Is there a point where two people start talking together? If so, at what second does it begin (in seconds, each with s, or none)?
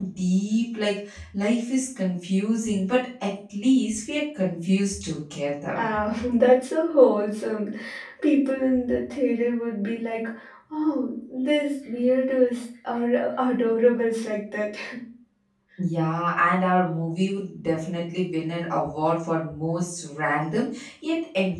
none